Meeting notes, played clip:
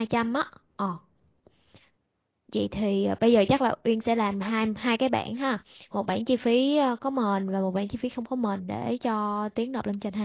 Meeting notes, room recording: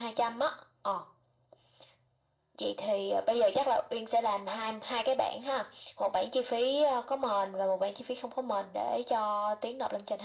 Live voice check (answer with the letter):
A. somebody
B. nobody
B